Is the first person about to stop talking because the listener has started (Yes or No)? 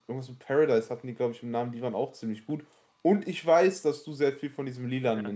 Yes